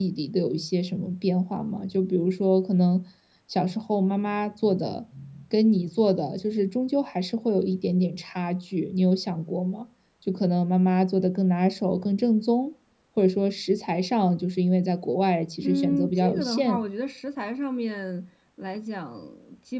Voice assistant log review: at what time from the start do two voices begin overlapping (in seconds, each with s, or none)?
15.6 s